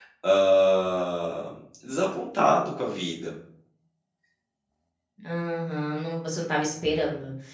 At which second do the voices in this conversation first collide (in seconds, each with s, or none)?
none